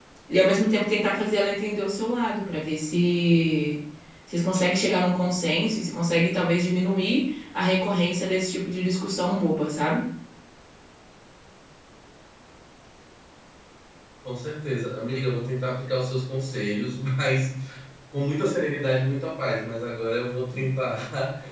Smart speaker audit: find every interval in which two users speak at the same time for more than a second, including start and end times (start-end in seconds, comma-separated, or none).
none